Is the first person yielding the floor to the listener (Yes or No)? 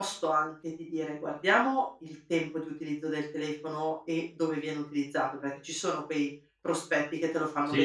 Yes